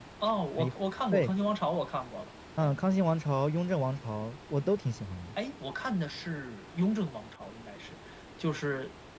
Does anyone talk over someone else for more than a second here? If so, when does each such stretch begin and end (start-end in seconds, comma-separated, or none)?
none